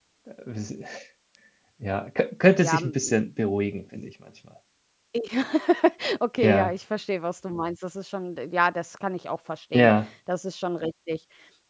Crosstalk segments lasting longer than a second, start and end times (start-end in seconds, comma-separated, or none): none